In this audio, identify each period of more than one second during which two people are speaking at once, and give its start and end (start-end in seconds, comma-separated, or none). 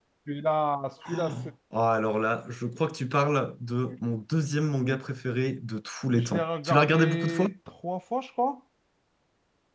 6.1-7.5